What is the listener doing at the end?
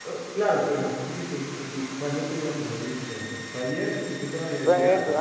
taking over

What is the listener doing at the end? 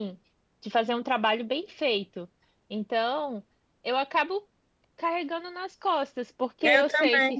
listening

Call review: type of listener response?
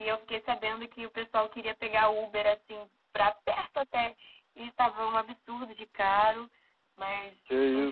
listening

